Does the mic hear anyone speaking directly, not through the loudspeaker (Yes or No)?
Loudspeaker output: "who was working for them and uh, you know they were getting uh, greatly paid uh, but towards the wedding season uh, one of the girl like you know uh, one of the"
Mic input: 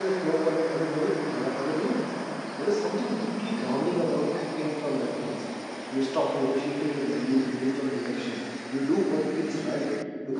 Yes